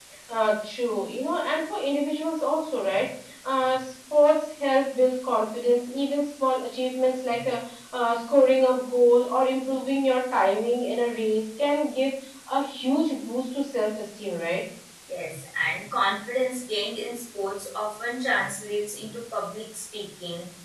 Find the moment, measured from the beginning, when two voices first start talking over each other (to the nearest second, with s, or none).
none